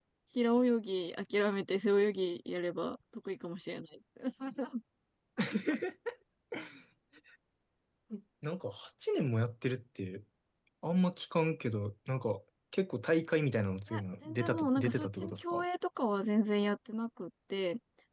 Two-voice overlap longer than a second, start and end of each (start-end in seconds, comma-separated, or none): 13.9-15.6